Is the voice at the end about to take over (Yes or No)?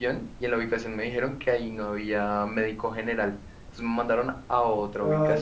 Yes